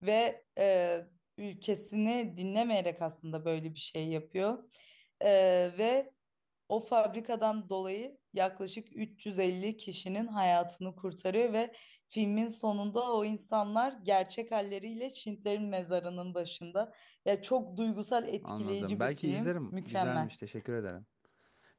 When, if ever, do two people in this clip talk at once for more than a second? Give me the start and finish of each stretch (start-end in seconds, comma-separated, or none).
18.4-20.3